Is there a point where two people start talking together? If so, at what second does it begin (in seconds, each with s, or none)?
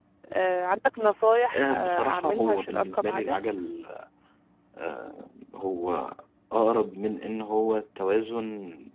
1.3 s